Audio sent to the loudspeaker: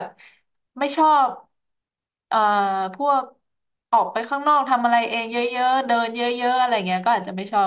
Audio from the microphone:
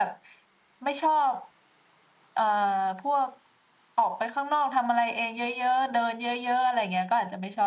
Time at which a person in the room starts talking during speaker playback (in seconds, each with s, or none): none